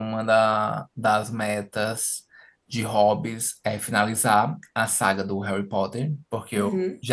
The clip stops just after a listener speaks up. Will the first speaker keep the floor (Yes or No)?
Yes